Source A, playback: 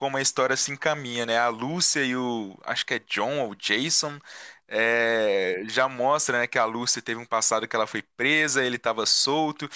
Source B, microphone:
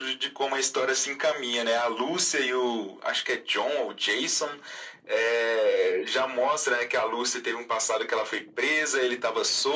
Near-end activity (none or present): none